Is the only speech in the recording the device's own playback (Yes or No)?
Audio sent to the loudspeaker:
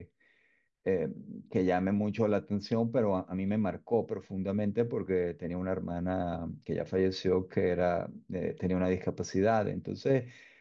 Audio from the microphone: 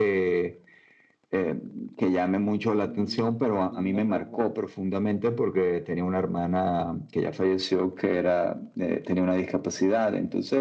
No